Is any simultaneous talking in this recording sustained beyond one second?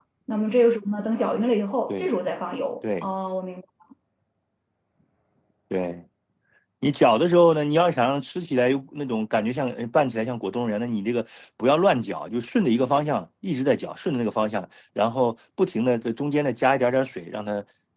No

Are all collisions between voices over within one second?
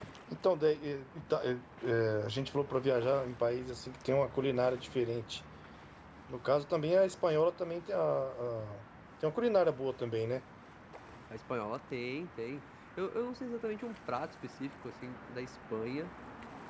Yes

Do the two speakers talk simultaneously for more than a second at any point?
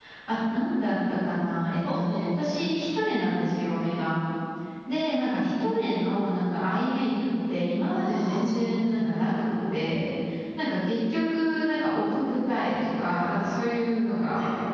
Yes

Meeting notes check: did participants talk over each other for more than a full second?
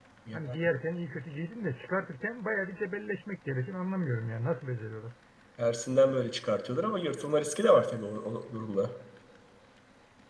No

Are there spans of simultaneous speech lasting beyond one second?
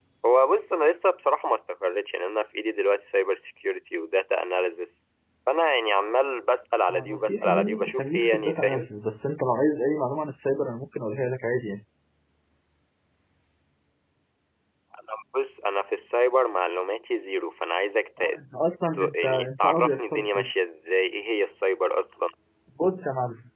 Yes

